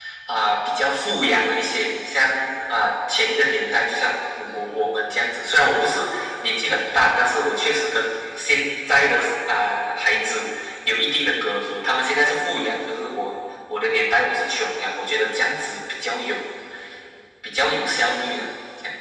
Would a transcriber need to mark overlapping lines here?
No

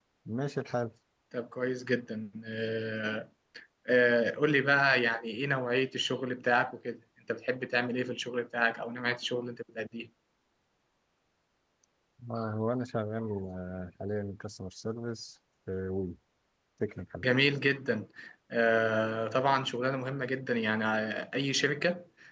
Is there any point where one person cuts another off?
No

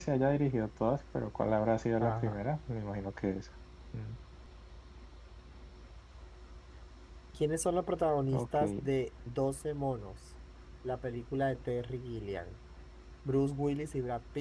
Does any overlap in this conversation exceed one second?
No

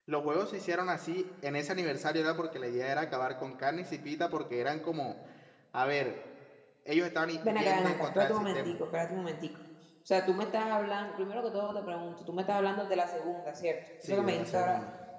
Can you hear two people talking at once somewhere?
Yes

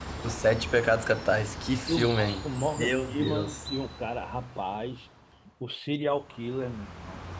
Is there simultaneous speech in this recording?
Yes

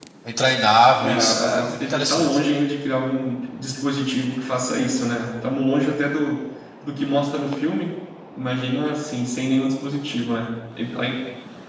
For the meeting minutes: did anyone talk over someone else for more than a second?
Yes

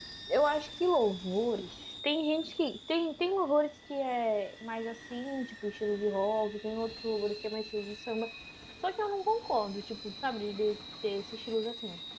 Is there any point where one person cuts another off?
No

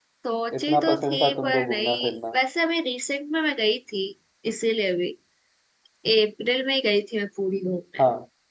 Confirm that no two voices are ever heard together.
No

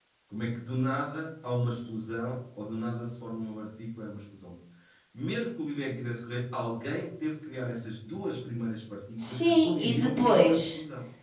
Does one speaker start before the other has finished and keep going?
Yes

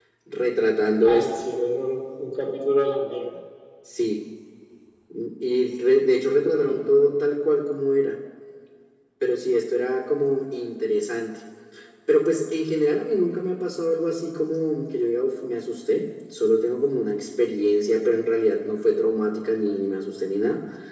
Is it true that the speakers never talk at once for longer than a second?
Yes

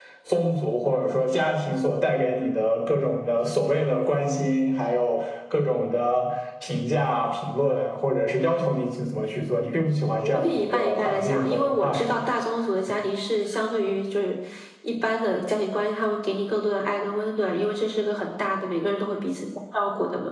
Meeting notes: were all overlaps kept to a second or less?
No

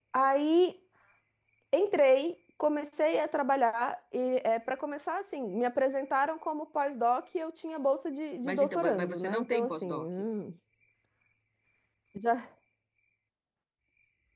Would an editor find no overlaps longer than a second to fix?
No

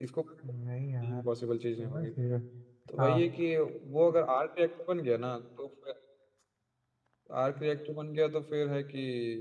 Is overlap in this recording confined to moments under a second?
Yes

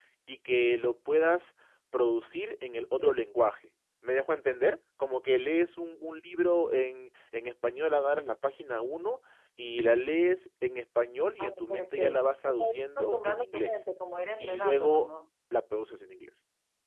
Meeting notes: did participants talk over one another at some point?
Yes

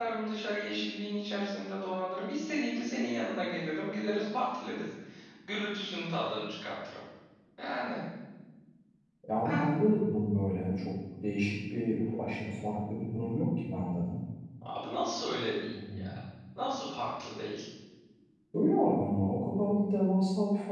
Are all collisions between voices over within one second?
Yes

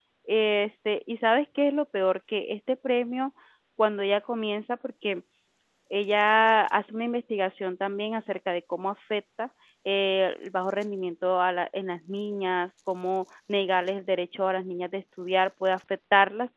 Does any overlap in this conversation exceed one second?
No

